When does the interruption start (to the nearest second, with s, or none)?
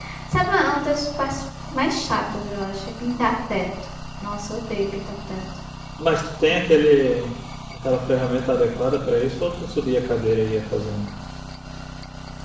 none